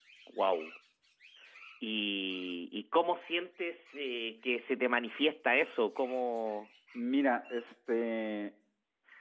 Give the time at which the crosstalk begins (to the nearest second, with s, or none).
none